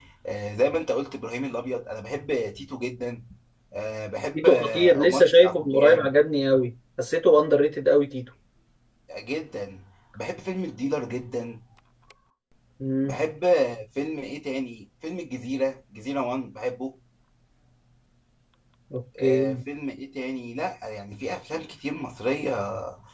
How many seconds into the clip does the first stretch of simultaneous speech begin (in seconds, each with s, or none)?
4.3 s